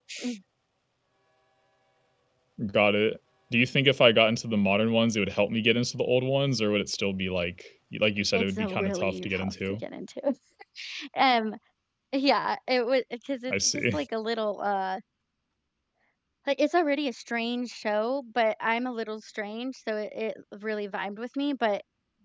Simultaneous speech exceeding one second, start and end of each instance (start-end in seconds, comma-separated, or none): 8.3-9.5